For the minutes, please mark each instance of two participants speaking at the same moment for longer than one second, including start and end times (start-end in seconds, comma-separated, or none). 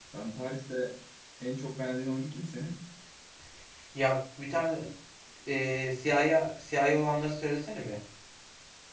none